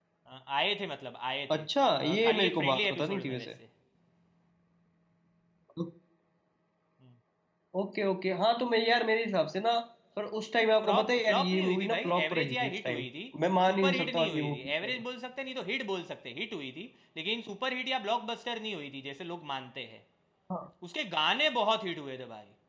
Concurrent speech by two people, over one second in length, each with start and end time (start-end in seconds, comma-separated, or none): 2.0-3.5, 10.6-13.1, 13.7-15.0